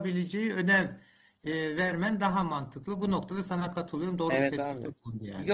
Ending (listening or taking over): taking over